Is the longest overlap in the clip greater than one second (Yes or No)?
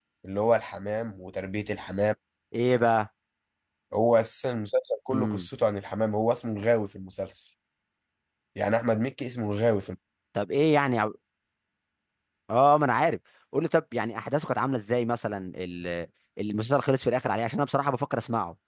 No